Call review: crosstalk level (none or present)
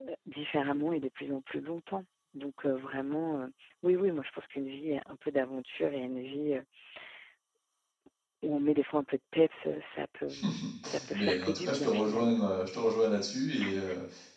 present